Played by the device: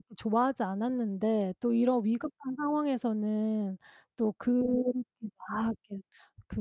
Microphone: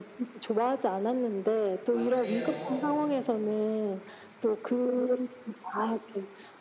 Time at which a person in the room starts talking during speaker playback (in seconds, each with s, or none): 1.9 s